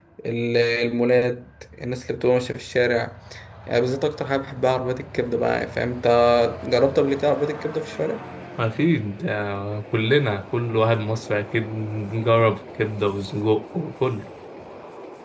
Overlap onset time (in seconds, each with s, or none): none